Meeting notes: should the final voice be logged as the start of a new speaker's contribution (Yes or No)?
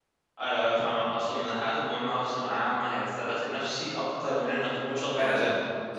Yes